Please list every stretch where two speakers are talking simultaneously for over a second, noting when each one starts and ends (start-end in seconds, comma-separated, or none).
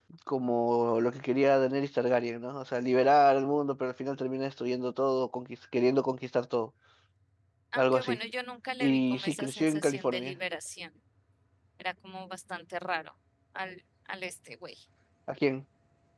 8.8-10.4